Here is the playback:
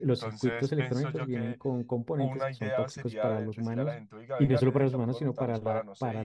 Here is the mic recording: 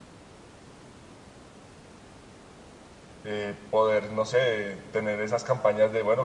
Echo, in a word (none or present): none